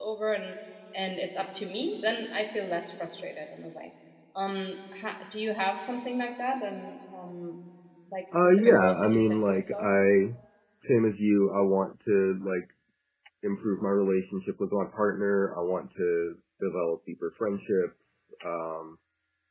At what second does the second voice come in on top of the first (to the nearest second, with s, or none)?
8 s